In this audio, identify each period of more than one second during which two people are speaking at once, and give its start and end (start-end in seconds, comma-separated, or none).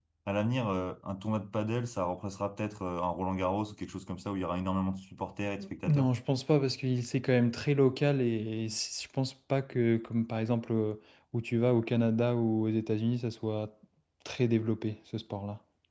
none